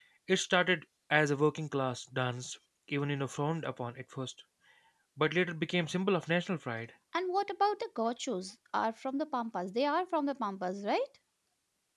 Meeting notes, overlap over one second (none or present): none